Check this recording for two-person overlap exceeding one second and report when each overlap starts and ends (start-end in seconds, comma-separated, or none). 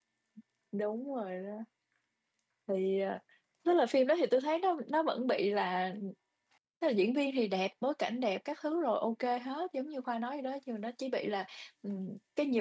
none